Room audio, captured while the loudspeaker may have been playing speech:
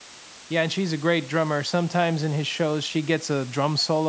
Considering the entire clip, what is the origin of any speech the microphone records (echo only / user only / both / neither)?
user only